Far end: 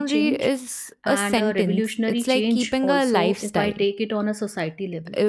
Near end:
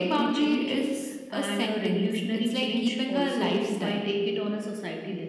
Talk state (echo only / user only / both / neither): echo only